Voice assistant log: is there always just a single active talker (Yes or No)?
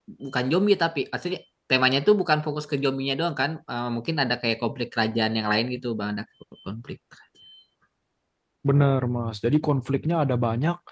Yes